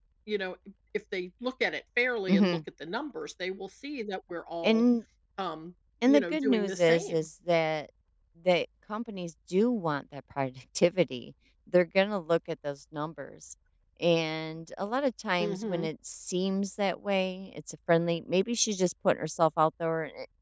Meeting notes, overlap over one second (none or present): present